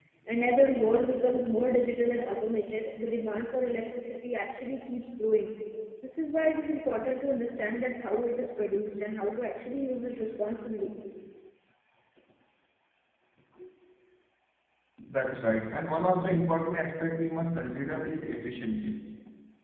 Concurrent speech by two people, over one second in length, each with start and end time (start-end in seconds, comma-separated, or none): none